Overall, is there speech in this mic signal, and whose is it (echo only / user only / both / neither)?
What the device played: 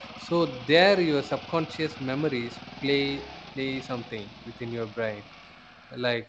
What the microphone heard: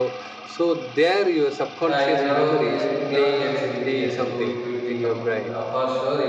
both